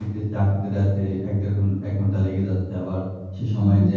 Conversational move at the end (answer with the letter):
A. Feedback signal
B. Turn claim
A